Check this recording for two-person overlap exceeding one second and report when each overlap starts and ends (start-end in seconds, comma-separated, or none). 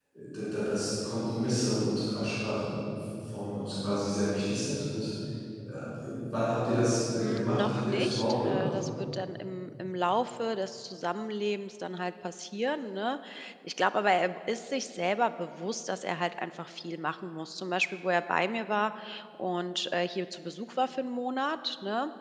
7.2-8.6